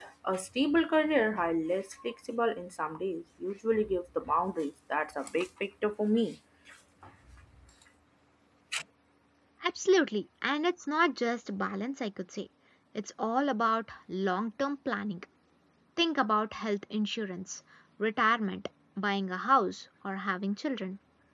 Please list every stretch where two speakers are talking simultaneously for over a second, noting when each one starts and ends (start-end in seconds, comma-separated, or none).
none